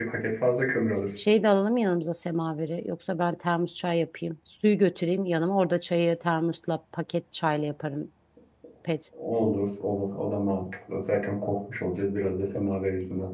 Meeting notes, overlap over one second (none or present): none